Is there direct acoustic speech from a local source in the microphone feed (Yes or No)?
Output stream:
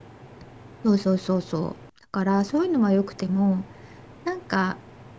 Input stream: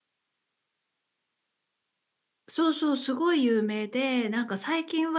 Yes